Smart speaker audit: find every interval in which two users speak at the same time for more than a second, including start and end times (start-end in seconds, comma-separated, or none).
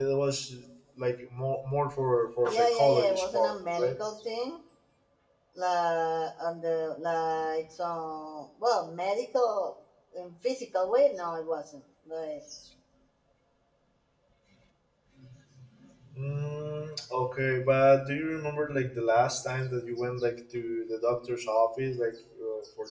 2.4-4.0